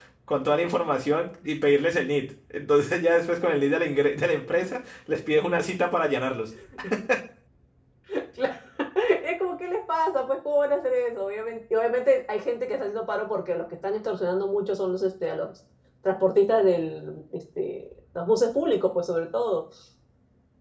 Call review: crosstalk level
none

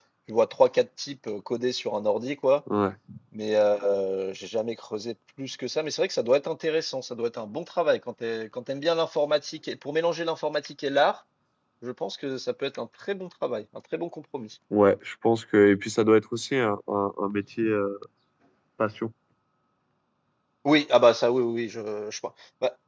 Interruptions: none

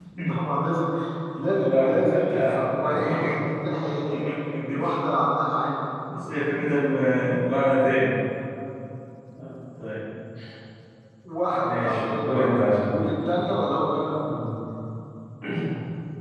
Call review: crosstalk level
present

